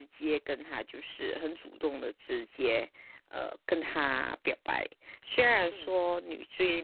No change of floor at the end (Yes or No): Yes